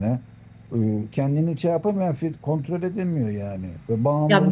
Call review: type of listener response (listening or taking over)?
taking over